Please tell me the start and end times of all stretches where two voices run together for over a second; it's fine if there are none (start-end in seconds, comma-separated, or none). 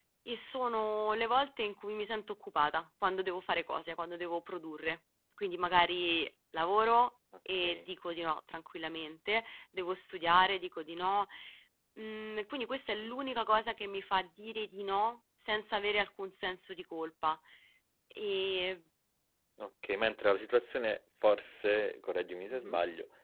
none